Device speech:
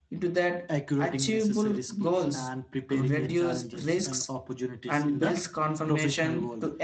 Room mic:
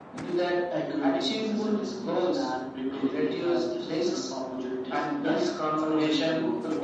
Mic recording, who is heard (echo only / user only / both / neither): echo only